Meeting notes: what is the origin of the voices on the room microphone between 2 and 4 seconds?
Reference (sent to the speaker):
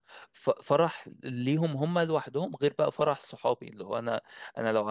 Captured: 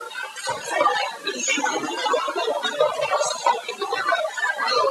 echo only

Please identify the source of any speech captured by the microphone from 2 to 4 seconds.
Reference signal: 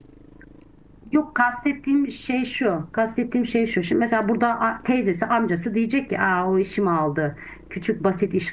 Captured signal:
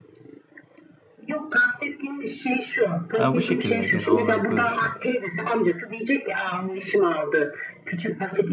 both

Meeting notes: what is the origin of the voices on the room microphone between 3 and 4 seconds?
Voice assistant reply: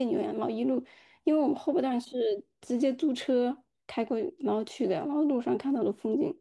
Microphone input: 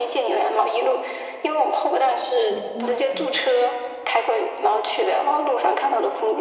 both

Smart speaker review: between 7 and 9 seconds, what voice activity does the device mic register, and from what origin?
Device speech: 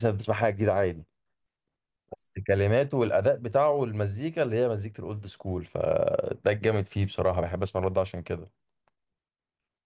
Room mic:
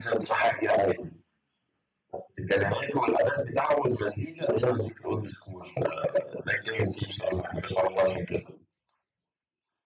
echo only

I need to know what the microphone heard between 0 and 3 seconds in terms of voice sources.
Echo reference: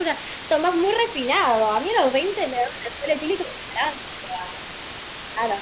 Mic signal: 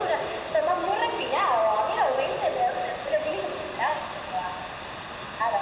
echo only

